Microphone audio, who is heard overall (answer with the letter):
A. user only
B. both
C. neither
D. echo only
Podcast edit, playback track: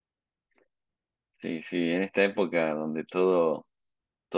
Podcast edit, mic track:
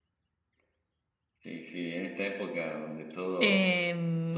B